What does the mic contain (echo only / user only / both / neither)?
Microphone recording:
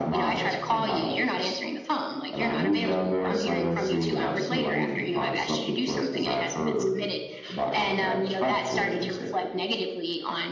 echo only